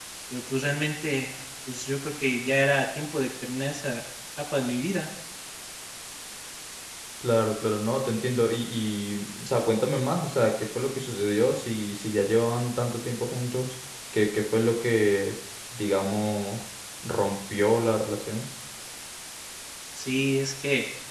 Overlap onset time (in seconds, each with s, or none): none